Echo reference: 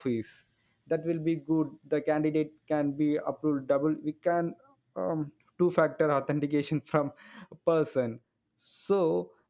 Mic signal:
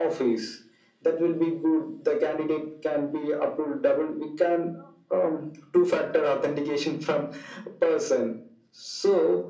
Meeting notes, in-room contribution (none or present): none